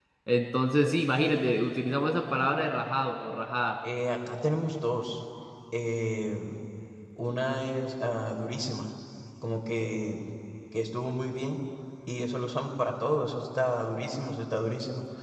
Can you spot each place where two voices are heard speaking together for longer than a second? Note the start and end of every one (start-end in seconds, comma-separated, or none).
none